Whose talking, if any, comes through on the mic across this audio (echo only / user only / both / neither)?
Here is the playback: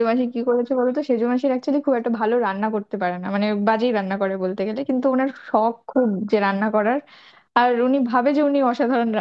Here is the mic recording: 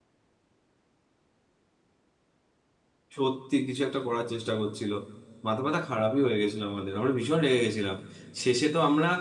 user only